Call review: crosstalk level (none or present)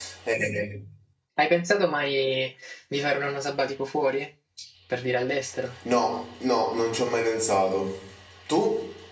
none